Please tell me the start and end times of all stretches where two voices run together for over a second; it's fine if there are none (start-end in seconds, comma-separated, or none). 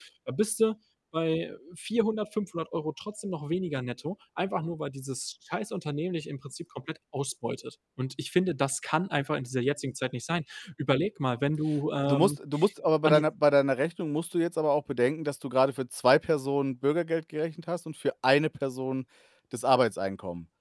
none